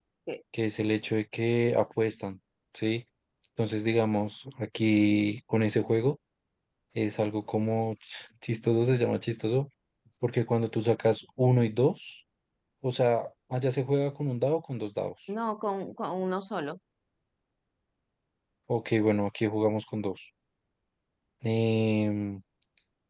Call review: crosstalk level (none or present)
none